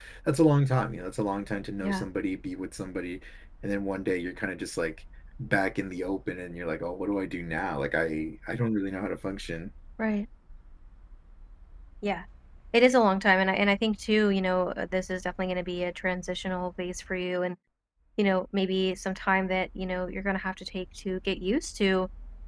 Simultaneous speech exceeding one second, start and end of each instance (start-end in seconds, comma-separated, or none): none